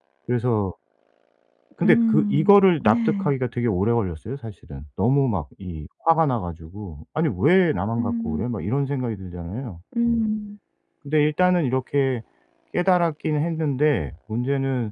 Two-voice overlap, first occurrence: 2 s

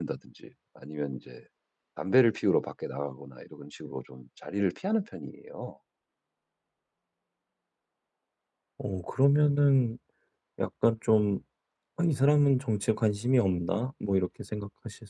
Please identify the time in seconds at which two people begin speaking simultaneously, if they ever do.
none

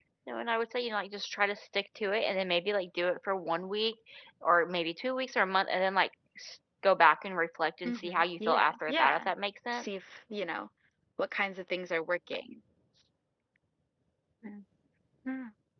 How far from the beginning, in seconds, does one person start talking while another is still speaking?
8 s

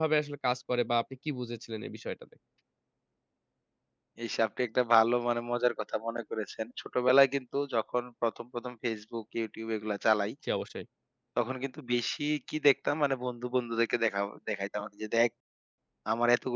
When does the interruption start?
none

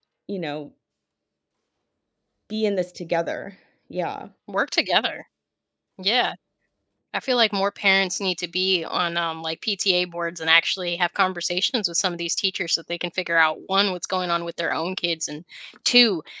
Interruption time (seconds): none

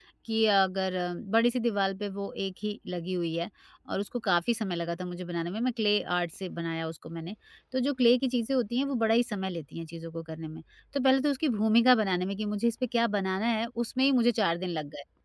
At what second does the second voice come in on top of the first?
none

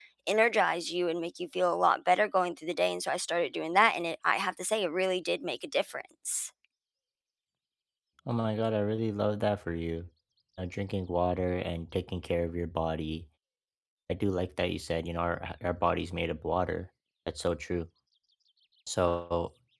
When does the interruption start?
none

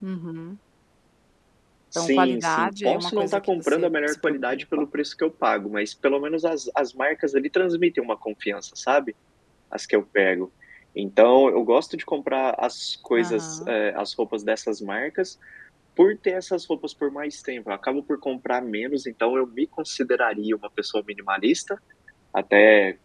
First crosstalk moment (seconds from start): 2 s

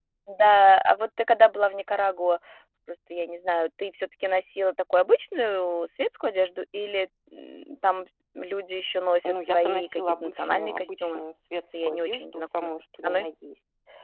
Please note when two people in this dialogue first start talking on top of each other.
9 s

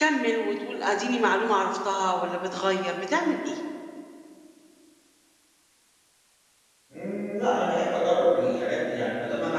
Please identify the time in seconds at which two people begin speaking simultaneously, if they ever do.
none

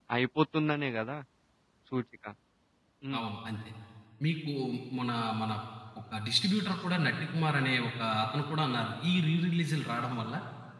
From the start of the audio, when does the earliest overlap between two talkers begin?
none

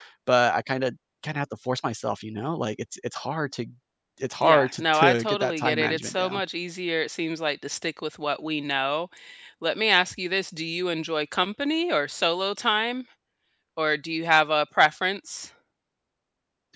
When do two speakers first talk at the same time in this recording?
4 s

